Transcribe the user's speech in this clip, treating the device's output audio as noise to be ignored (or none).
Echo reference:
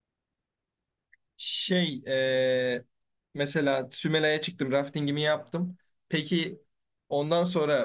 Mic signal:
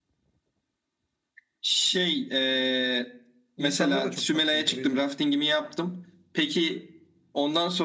insanlar da çok tatlıydı o yüzden.